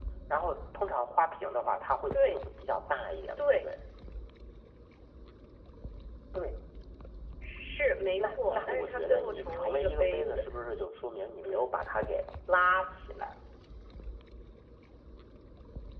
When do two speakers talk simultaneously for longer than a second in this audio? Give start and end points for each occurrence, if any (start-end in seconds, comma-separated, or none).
8.2-10.4